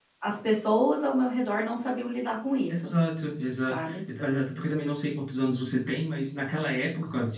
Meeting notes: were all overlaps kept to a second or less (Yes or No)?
Yes